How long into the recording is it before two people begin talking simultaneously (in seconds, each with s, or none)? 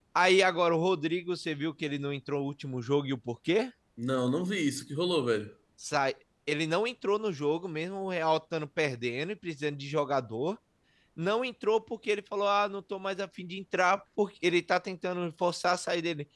none